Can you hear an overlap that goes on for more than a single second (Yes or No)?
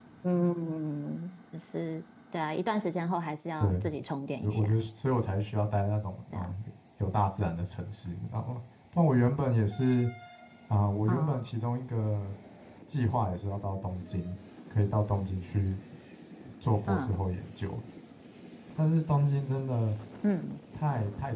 No